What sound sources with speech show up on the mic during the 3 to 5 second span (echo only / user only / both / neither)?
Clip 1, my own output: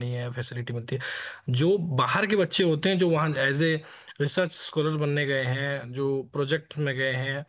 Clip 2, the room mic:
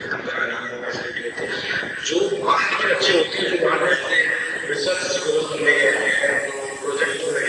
echo only